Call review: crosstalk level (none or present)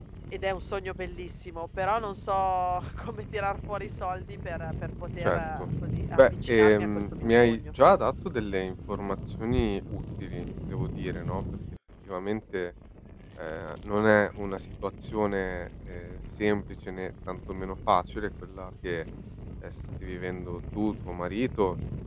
present